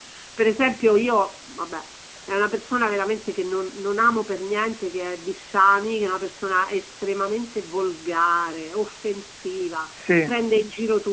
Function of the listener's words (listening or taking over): listening